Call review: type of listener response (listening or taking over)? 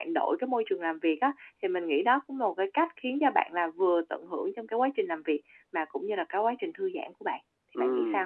taking over